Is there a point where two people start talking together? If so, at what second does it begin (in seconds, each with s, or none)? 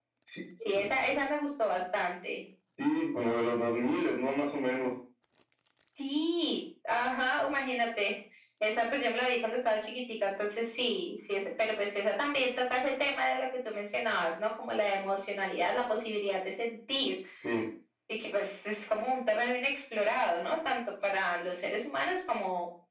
none